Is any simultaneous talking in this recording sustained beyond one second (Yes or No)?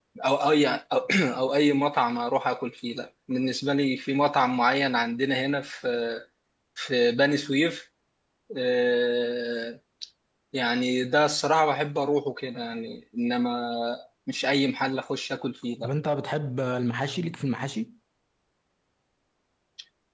No